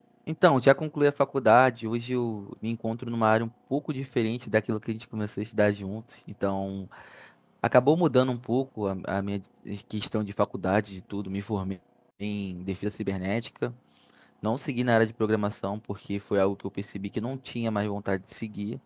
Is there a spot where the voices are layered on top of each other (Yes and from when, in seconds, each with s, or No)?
No